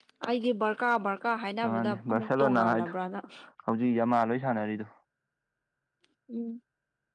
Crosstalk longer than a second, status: present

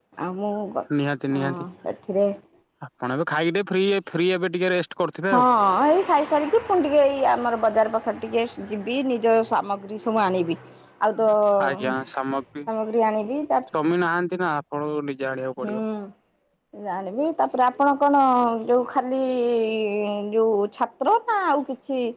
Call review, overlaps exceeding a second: none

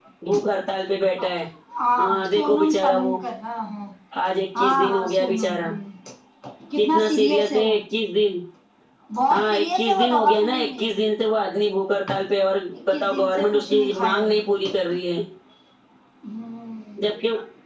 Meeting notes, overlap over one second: present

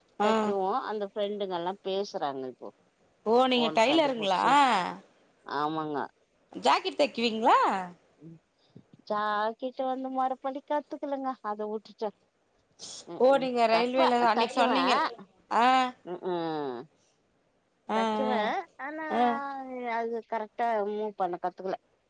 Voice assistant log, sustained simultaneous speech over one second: present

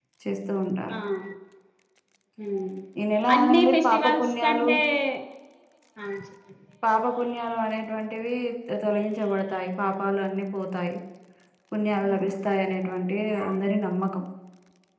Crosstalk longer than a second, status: present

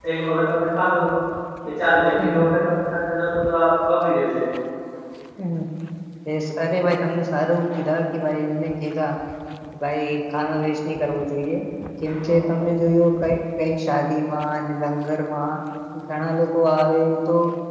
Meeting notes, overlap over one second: none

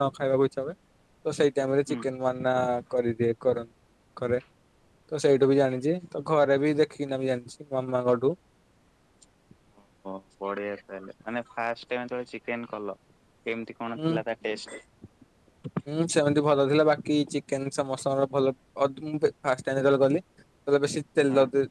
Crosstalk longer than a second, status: none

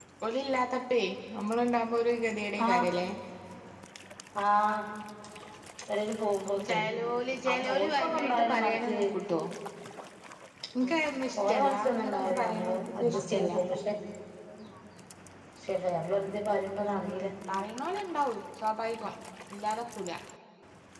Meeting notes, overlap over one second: present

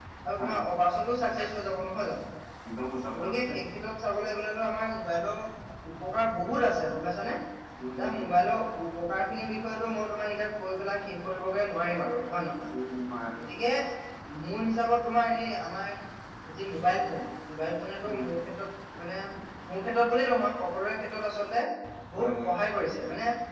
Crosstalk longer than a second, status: none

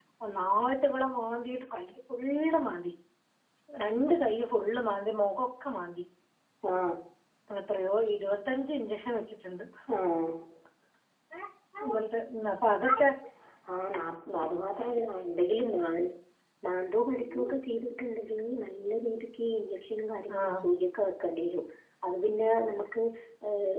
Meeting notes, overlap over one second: none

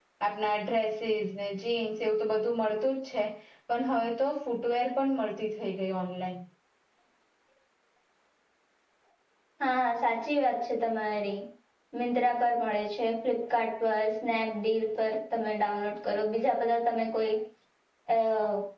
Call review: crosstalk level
none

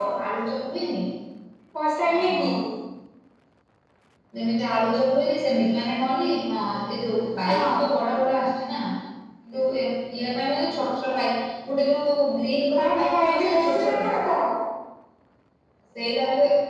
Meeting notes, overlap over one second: present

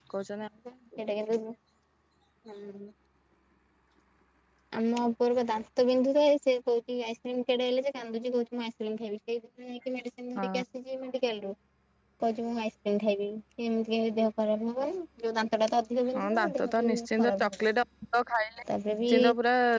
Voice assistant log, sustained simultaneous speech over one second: present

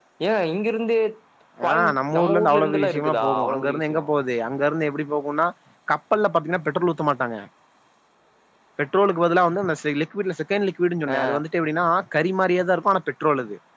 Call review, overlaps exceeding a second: present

